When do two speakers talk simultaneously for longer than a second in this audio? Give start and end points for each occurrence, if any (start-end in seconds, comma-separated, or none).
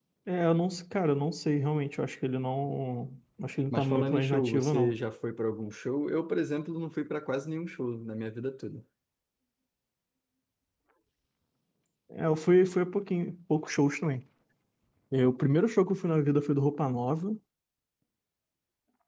3.7-4.9